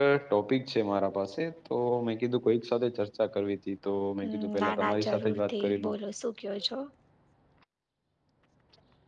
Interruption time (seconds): 4.2 s

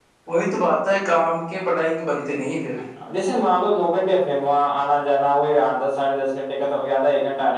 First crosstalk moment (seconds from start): none

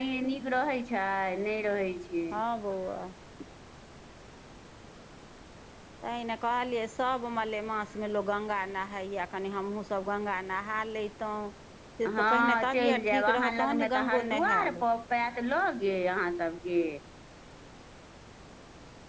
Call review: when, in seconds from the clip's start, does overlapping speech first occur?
12.1 s

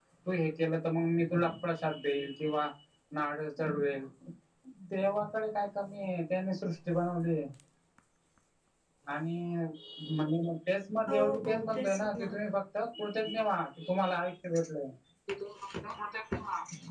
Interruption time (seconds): 11.1 s

